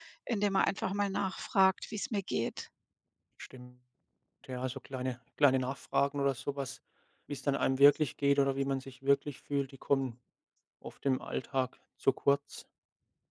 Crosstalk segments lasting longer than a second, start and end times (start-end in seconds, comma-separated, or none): none